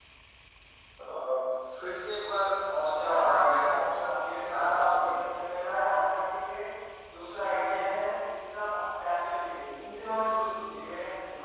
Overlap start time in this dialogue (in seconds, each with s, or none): 2.6 s